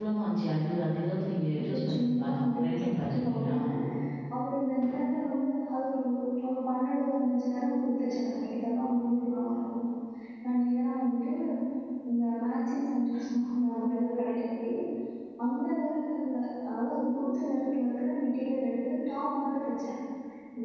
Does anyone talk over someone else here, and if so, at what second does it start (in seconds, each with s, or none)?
1.6 s